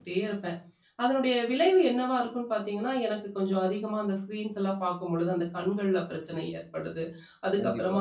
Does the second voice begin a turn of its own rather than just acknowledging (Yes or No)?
No